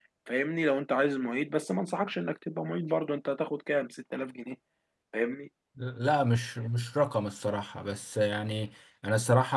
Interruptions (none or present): none